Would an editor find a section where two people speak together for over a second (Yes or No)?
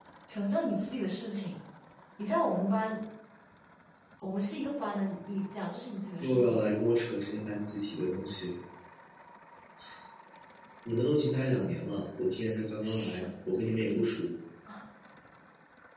No